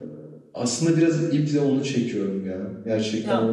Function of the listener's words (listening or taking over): listening